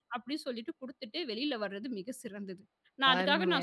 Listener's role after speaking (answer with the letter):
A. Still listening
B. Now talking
A